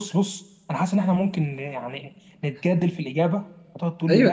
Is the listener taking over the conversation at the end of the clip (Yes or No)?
Yes